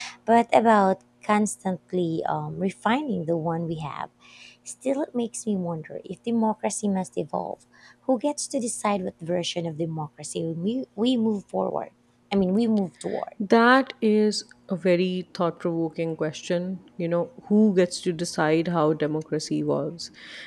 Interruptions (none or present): none